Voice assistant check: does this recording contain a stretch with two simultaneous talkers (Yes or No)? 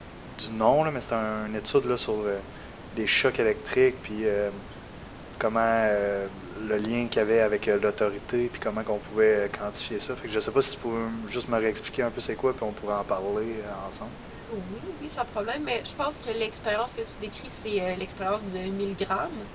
No